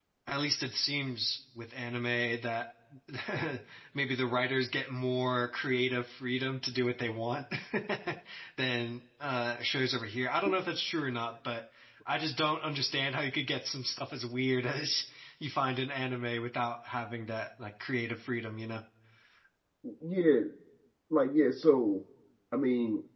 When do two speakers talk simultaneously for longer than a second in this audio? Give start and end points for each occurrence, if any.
none

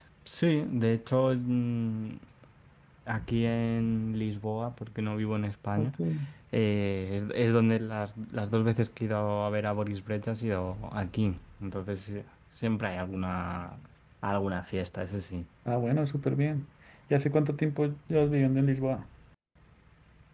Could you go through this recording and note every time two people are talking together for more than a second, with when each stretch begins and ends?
none

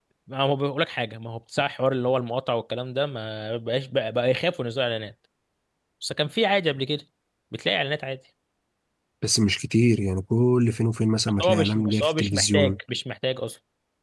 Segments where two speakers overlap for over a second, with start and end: 11.4-12.8

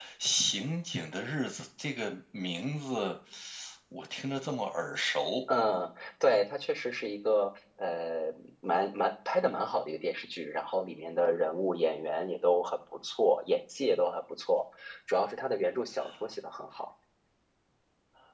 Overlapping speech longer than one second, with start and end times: none

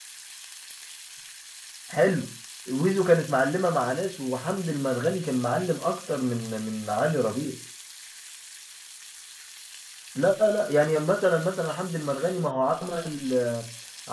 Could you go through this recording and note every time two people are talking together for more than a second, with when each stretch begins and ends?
none

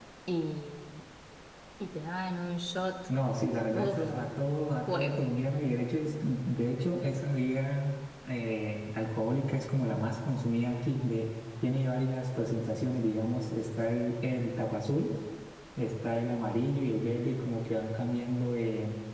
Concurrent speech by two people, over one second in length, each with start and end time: none

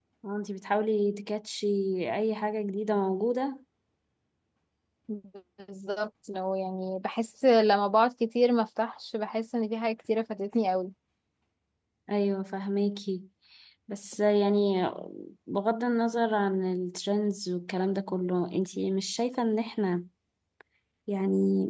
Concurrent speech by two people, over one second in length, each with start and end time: none

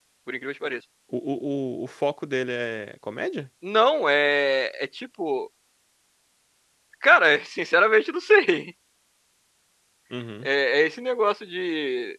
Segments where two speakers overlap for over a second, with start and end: none

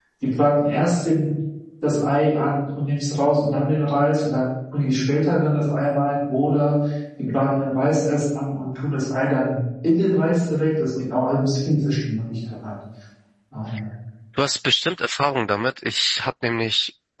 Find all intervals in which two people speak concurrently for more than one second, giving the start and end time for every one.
none

